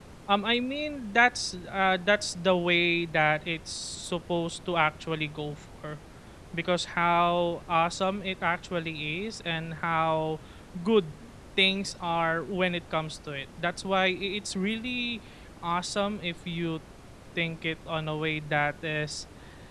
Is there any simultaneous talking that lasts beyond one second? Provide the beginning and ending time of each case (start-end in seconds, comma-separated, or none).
none